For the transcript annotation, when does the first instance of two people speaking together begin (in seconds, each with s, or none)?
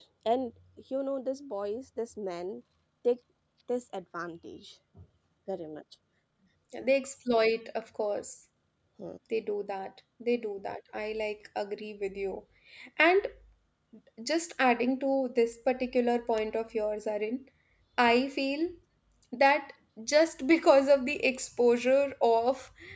none